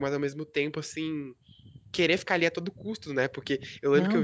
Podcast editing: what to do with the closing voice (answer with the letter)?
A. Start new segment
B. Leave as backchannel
B